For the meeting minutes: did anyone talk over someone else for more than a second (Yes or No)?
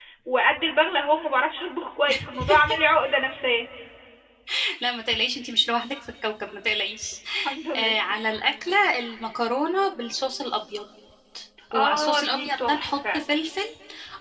Yes